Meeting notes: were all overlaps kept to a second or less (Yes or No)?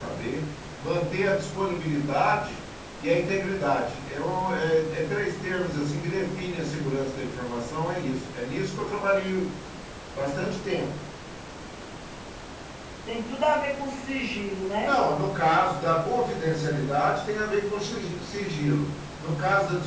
Yes